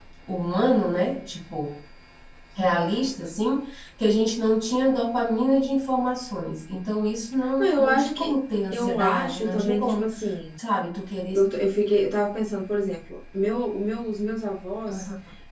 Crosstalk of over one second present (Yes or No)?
Yes